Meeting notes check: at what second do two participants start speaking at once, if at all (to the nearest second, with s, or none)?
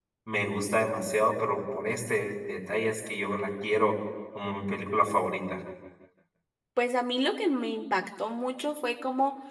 none